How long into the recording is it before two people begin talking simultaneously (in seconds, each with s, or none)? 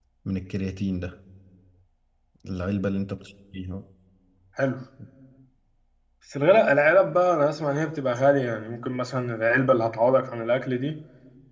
none